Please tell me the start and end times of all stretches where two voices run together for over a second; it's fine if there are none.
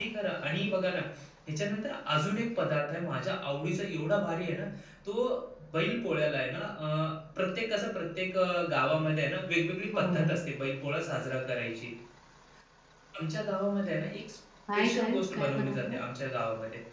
14.8-16.0

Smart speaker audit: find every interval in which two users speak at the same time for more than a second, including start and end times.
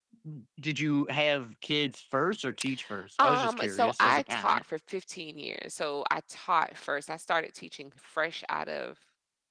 3.2-4.6

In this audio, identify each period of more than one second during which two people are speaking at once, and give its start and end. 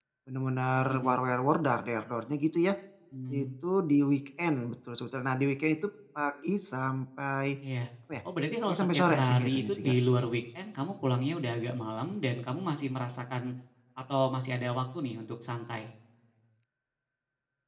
8.7-9.9

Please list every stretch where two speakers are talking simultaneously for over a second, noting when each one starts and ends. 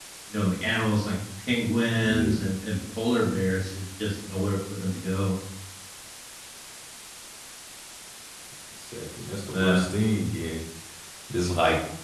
none

